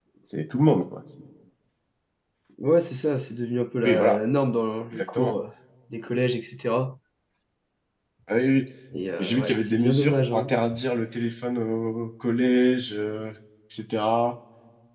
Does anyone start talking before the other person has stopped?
Yes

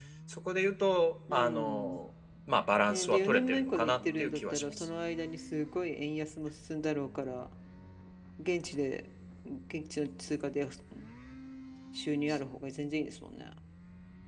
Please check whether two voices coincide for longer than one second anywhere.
Yes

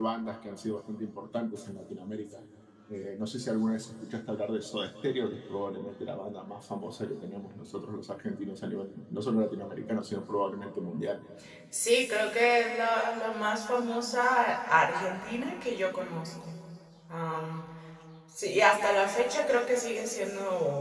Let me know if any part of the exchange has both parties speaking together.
No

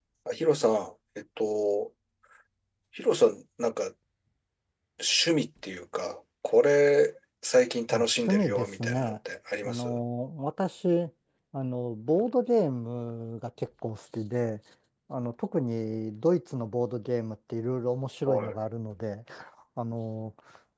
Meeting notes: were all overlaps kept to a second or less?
No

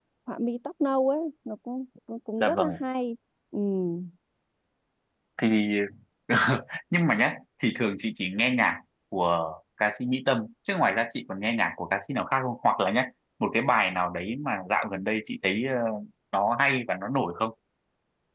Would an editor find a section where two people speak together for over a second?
No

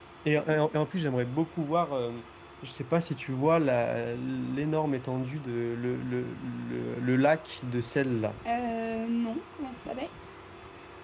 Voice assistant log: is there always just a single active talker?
Yes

